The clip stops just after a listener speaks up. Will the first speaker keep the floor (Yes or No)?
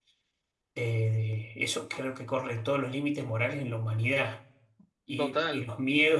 Yes